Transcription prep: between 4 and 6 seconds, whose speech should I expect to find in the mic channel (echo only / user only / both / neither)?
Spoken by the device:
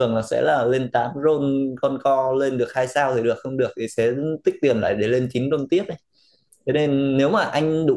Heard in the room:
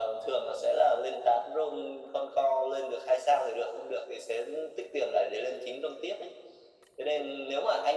echo only